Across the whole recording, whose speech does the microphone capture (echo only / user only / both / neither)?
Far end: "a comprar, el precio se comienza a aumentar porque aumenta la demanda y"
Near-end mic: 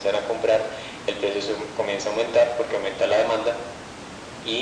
echo only